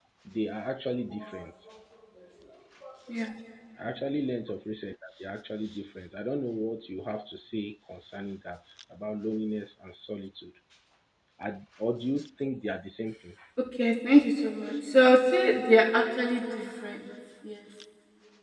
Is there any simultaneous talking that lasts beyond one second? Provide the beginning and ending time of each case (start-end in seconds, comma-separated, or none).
none